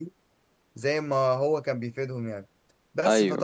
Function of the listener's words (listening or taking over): listening